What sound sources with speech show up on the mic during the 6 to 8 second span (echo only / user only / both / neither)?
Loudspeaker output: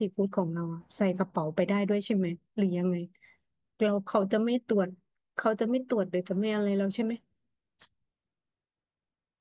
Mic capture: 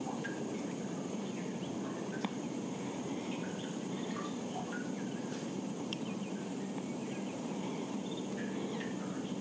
neither